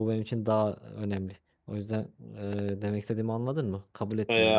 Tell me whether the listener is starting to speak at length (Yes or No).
Yes